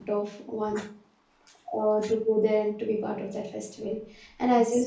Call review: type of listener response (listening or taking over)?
listening